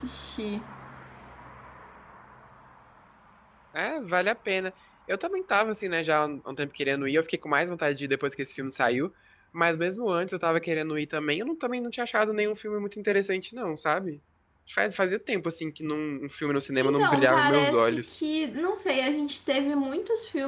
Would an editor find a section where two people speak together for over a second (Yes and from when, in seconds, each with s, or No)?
Yes, from 16.8 s